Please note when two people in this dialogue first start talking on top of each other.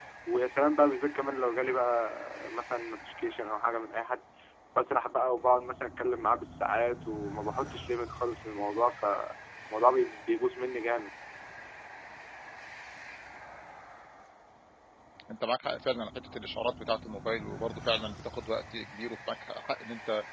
none

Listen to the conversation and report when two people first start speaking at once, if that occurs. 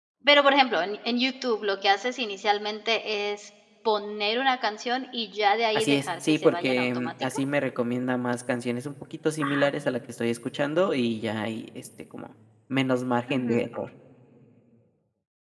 5.8 s

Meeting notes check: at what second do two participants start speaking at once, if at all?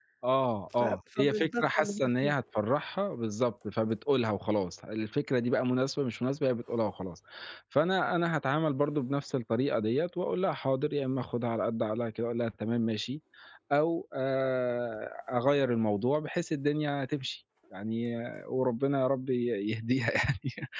0.8 s

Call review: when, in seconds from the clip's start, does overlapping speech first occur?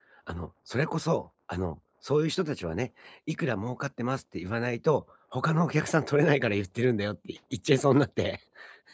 none

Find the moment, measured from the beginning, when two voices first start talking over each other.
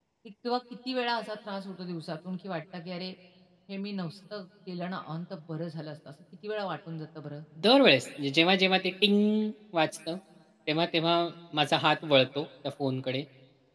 none

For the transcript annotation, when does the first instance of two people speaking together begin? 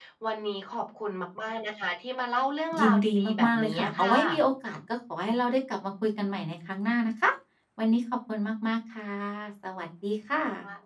2.7 s

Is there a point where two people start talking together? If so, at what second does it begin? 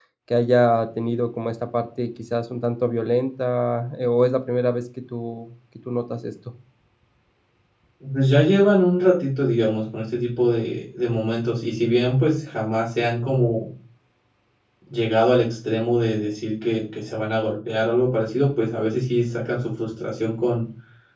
none

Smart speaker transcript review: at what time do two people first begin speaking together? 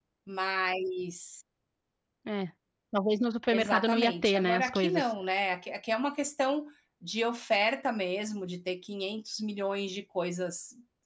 3.5 s

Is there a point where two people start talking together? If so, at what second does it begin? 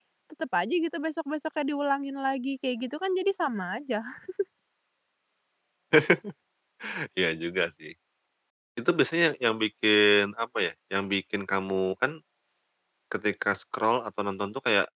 none

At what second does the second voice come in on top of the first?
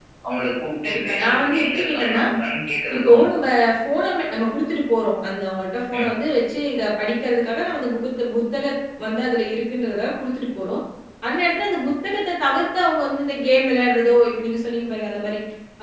0.8 s

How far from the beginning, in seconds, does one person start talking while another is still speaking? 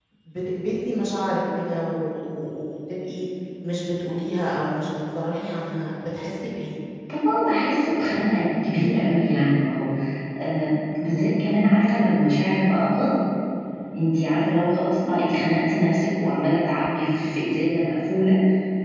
none

